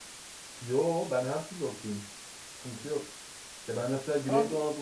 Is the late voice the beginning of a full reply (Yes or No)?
No